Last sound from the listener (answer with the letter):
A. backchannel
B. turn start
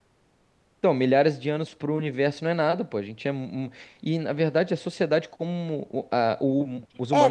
B